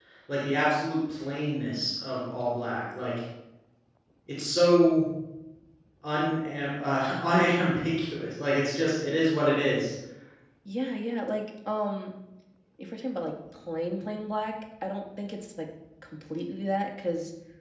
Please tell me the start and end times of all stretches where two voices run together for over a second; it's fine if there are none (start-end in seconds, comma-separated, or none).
none